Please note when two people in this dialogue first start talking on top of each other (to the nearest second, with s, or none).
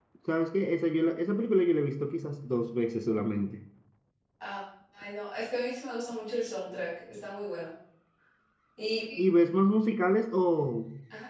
none